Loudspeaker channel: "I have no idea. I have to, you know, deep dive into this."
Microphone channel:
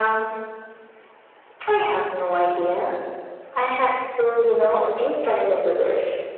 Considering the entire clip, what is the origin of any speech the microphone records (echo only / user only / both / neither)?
echo only